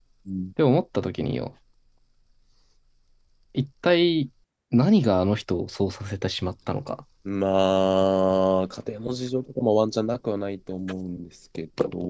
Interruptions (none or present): none